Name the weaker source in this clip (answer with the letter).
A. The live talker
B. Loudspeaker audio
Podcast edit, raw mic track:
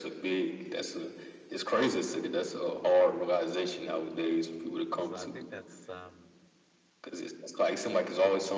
A